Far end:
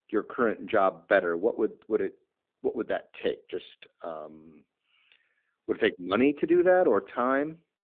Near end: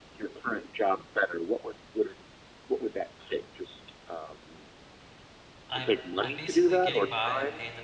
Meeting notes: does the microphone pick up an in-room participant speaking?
Yes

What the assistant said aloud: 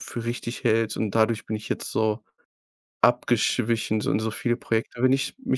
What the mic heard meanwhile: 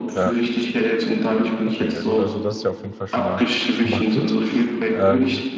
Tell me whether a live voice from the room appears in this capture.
Yes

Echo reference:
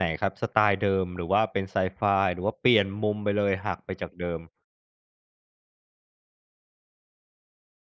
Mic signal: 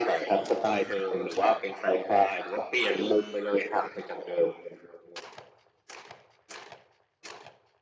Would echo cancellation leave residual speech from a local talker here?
No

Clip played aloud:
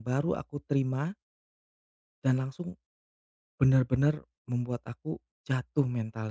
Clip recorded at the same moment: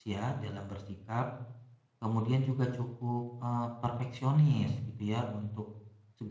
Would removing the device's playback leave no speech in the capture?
No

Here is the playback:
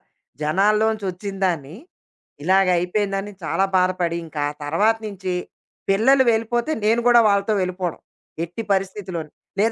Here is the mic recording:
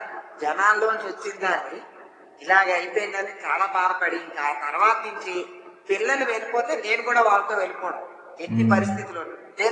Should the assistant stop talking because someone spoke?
Yes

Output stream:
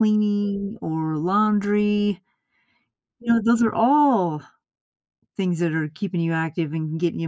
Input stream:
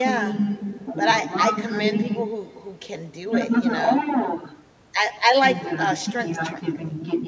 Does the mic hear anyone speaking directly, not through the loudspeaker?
Yes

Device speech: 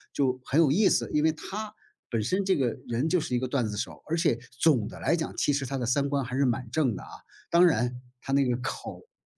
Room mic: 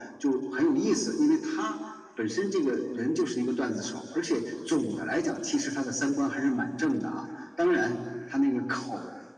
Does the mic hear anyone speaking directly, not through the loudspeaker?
No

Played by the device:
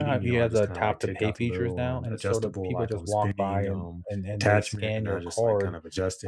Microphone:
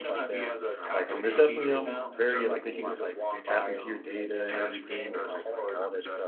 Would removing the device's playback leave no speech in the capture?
No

